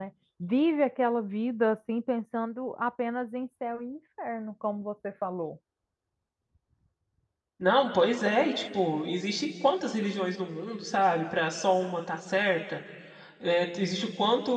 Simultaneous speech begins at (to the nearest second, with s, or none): none